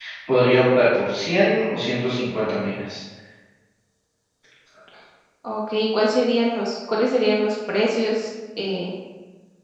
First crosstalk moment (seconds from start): none

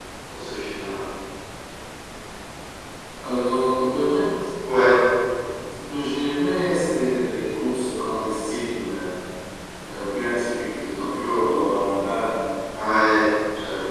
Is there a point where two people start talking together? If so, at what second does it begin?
none

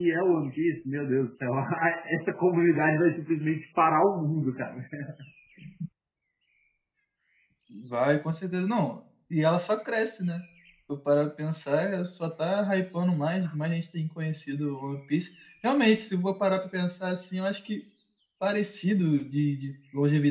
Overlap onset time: none

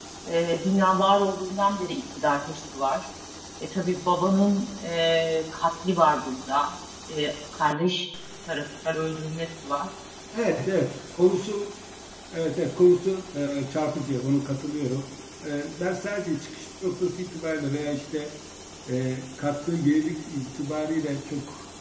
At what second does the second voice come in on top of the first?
none

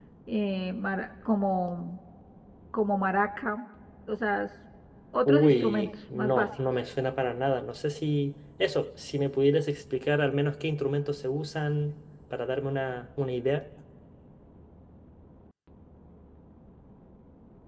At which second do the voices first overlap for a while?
5.2 s

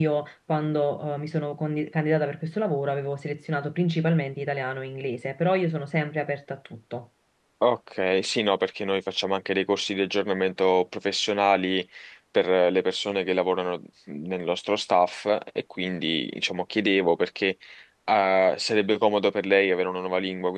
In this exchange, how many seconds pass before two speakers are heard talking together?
none

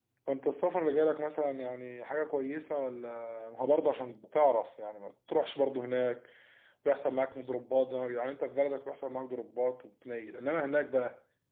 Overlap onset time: none

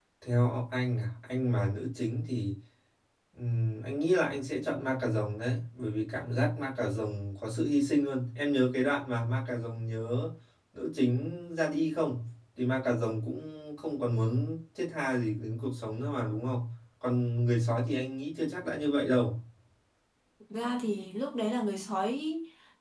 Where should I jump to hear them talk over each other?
none

